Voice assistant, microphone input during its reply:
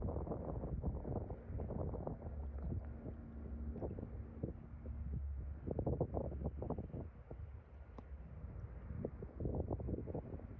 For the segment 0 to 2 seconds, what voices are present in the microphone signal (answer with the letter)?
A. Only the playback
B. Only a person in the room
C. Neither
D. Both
C